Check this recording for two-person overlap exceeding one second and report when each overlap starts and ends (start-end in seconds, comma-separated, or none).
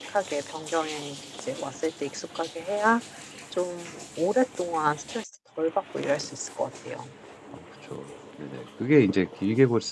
none